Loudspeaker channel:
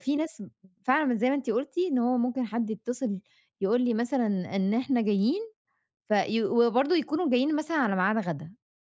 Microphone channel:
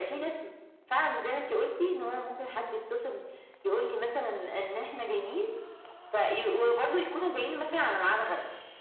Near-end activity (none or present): none